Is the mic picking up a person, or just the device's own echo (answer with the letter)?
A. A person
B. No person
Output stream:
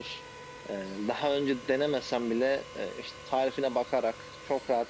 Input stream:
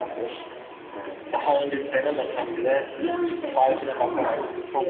A